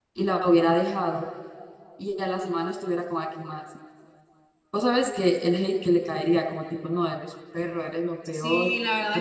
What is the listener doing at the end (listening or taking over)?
taking over